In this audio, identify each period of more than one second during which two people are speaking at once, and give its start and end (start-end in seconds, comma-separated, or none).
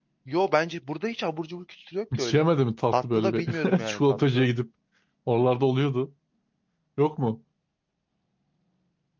2.9-4.5